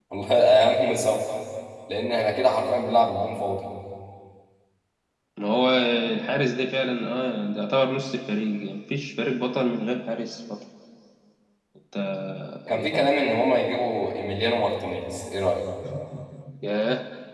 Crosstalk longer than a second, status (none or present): none